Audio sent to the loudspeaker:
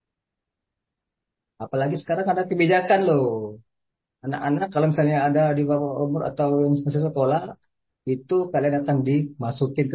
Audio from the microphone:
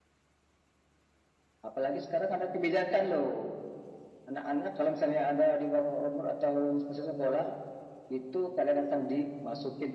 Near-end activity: none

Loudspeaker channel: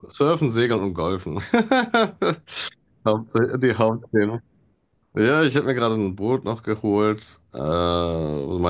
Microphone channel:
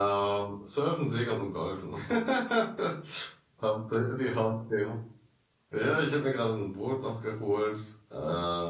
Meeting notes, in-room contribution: none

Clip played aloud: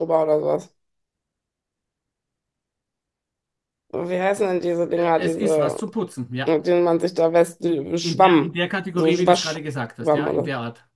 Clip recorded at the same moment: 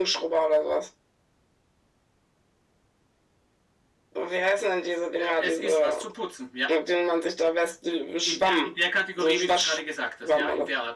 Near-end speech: none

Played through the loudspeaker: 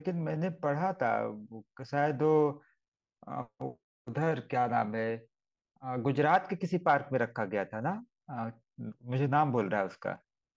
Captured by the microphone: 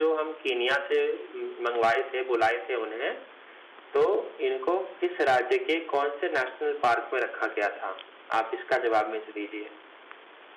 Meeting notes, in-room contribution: present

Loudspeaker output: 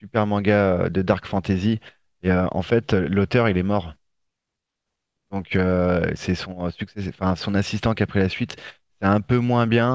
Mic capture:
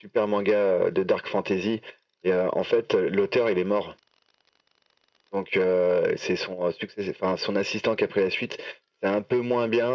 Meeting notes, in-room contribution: none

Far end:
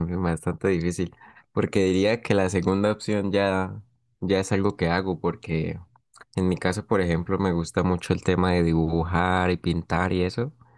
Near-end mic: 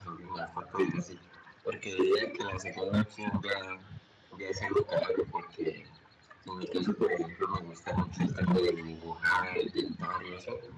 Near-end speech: none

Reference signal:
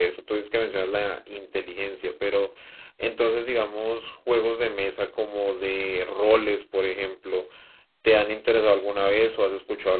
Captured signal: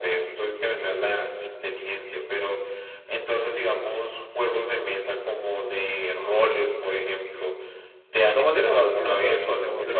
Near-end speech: present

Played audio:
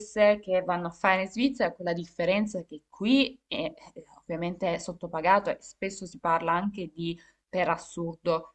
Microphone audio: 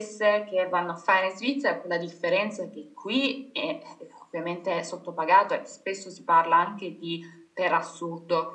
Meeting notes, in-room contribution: none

